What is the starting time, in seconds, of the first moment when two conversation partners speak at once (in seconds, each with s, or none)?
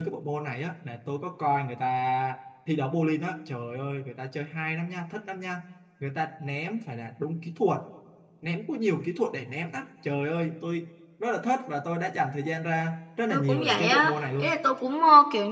13.3 s